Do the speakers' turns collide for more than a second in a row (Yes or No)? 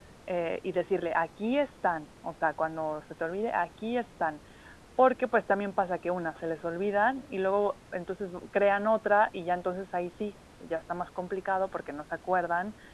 No